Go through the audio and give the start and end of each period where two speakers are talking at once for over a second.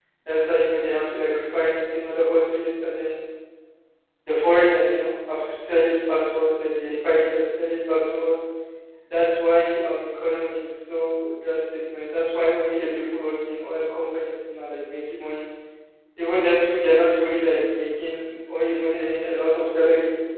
none

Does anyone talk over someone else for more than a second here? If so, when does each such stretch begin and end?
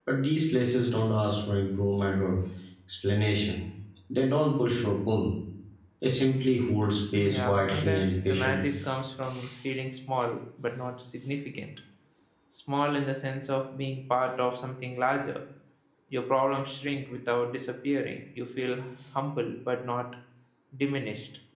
7.2-8.6

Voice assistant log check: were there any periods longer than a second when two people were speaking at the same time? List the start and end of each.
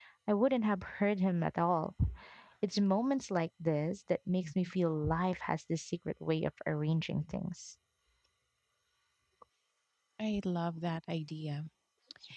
none

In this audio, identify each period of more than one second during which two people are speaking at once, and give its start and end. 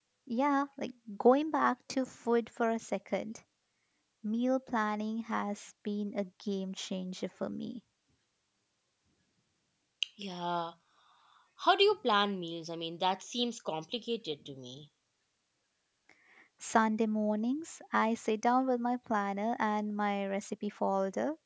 none

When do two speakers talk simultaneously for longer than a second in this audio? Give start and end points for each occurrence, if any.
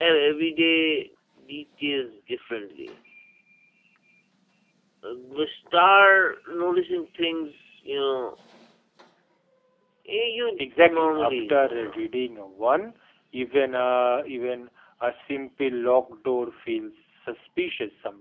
10.6-12.0

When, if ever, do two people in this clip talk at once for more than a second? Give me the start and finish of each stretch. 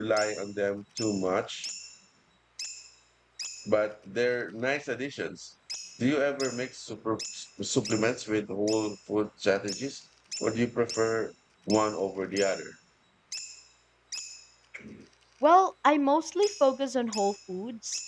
none

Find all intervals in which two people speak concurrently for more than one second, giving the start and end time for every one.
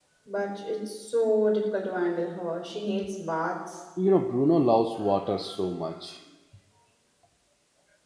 none

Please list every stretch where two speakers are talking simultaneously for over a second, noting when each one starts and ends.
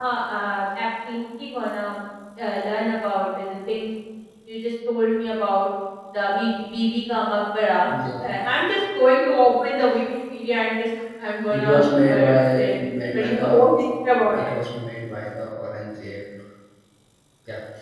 11.5-12.7

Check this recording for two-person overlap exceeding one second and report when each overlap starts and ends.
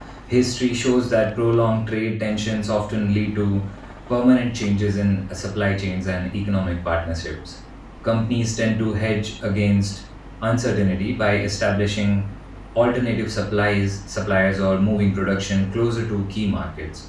none

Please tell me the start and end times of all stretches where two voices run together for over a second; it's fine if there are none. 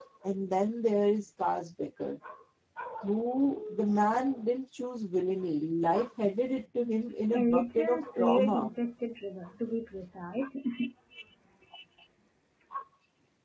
7.3-8.7

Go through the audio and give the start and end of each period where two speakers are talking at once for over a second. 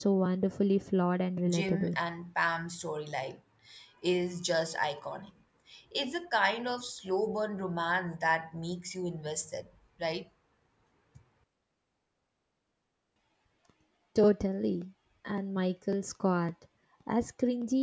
none

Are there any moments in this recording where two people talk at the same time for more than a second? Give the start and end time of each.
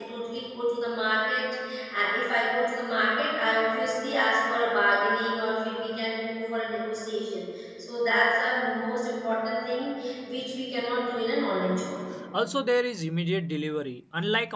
none

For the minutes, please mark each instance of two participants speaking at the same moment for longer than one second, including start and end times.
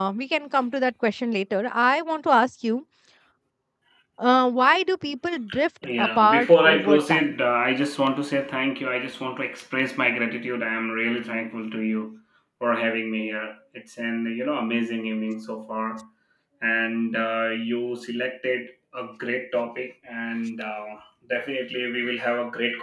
6.0-7.3

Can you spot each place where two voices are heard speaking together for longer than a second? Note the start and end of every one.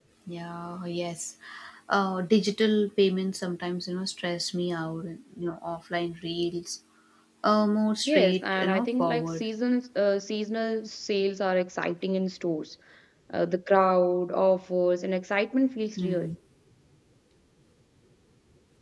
8.1-9.4

